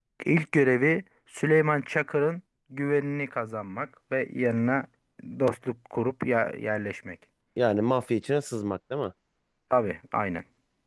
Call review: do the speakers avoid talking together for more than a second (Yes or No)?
Yes